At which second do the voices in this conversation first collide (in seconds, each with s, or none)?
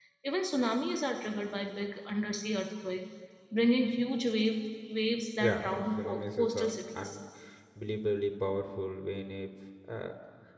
5.4 s